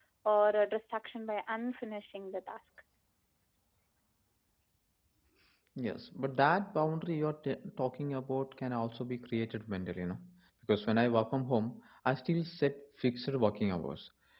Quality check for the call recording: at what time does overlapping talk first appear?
none

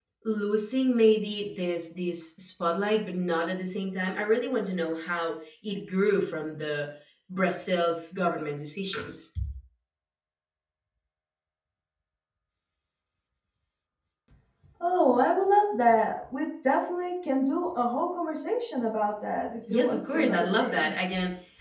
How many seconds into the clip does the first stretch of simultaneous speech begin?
20 s

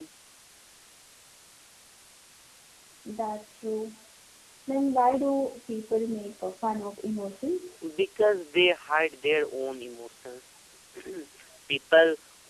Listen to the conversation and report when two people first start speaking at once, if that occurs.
none

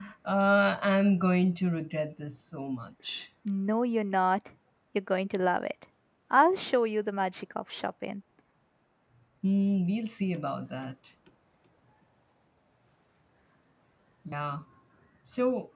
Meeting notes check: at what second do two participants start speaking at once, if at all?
none

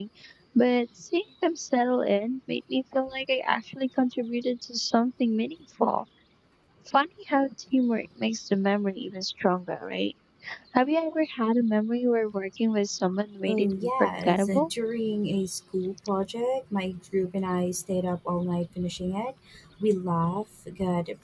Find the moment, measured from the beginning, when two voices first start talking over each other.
13 s

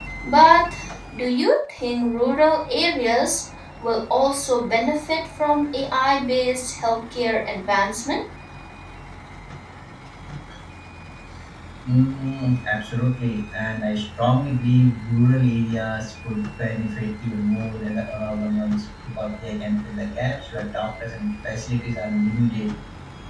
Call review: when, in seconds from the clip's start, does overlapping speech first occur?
none

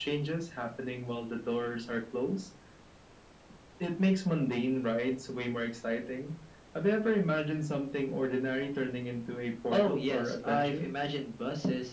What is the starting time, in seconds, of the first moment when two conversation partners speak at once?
10 s

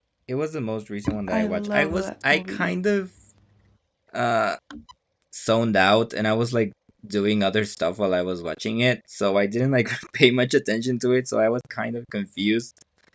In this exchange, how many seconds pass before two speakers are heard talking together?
1 s

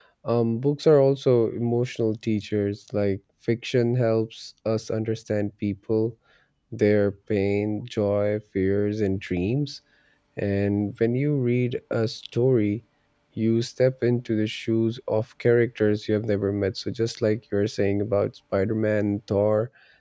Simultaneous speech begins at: none

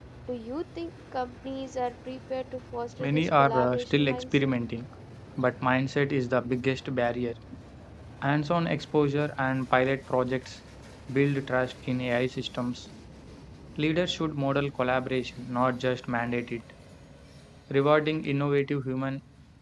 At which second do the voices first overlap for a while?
3 s

